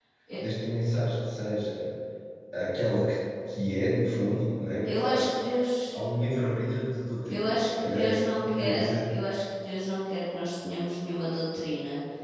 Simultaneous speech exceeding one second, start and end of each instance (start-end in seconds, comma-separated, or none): 7.2-9.1